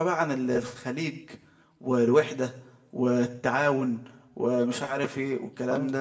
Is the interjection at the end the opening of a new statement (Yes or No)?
Yes